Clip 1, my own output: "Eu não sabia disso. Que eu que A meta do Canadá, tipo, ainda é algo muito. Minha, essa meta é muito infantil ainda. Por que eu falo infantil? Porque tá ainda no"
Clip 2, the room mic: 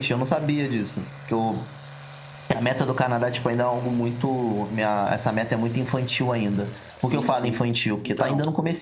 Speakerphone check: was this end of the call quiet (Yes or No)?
No